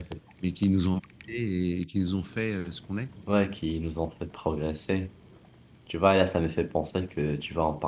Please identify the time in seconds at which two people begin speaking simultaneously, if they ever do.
none

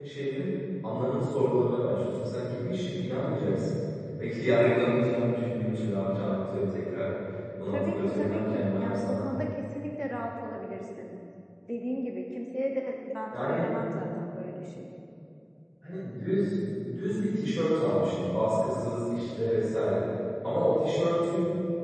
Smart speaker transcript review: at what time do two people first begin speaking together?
7.7 s

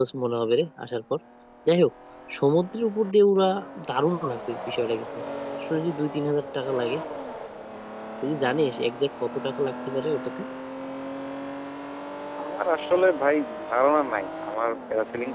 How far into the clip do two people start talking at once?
none

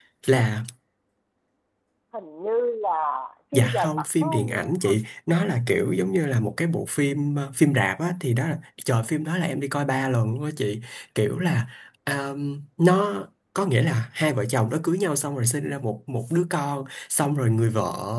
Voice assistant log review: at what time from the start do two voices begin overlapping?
3.5 s

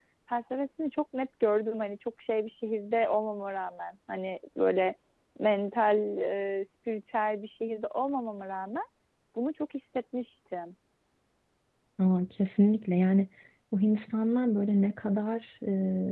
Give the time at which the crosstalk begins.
none

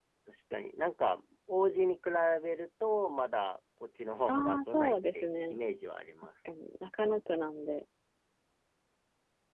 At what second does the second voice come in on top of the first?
4.3 s

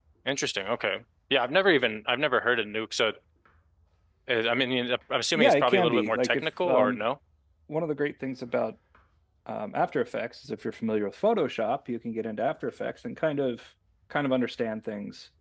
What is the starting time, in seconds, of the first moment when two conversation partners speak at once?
5.3 s

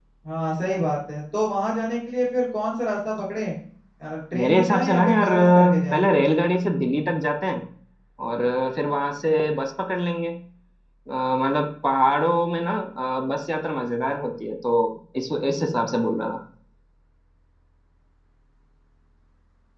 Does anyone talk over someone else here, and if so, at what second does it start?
4.3 s

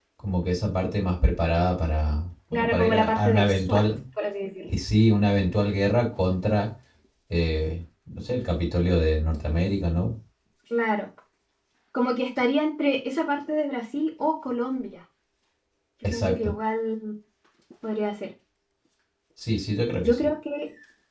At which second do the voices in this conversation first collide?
2.5 s

